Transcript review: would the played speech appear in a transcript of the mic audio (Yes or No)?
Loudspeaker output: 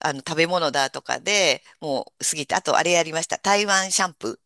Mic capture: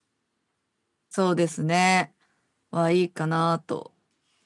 No